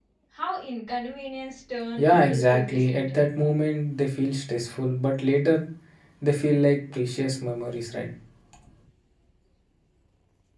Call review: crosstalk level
present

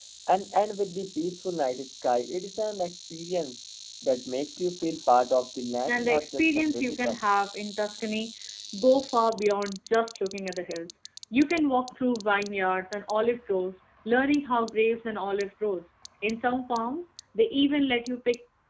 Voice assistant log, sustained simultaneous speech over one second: present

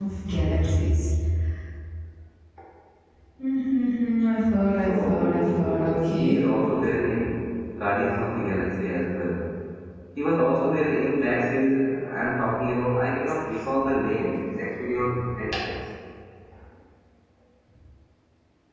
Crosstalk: present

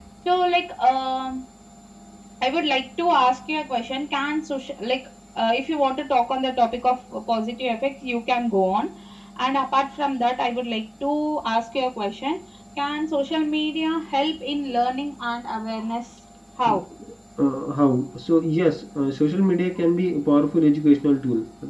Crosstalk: none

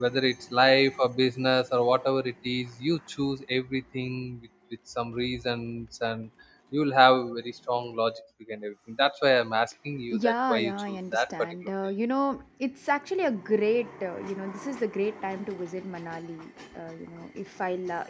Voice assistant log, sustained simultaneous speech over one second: present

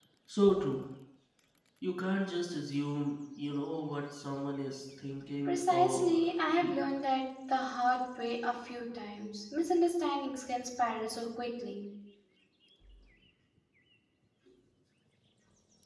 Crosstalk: present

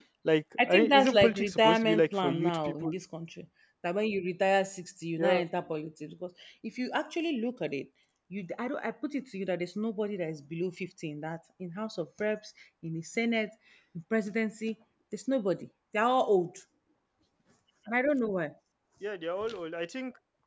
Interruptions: present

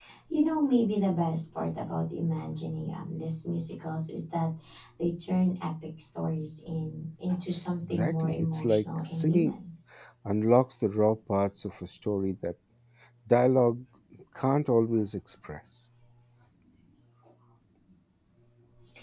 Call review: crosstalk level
present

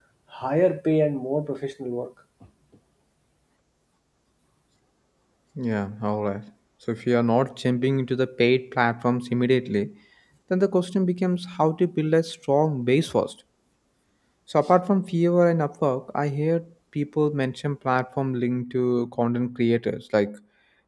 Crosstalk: none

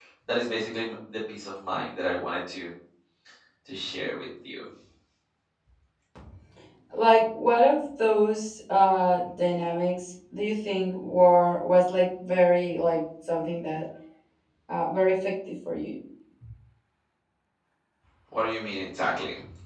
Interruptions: none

